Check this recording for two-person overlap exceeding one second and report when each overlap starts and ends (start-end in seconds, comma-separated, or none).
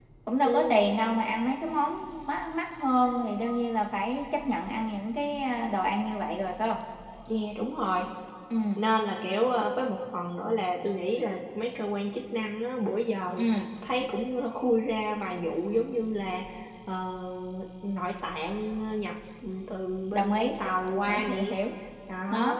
none